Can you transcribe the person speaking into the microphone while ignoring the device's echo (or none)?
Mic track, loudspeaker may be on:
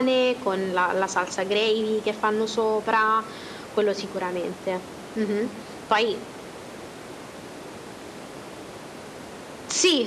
none